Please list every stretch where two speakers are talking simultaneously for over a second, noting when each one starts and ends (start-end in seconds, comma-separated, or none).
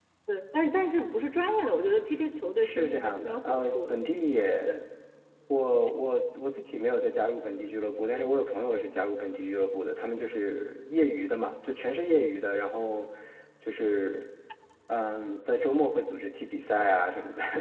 2.6-4.0